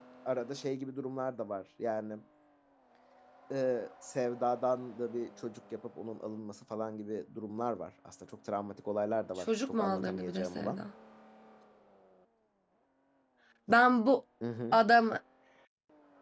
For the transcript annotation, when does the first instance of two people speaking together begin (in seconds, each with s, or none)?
9.4 s